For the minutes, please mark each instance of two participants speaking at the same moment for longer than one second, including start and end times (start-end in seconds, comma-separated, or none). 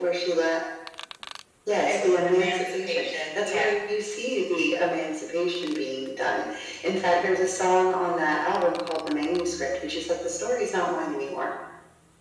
1.9-3.7